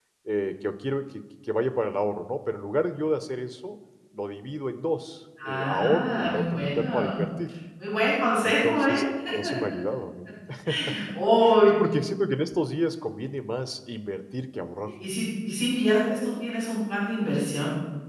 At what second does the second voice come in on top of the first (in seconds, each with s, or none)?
5.5 s